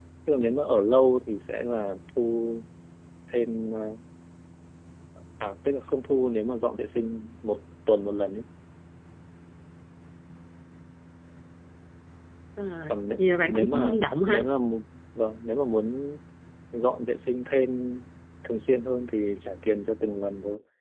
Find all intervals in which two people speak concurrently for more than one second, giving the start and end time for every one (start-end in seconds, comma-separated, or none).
12.9-14.5